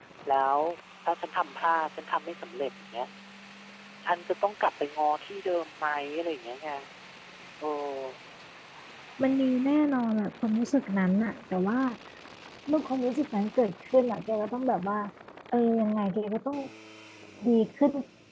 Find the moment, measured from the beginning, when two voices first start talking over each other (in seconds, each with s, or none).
none